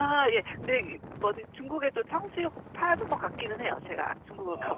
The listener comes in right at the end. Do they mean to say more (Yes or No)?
Yes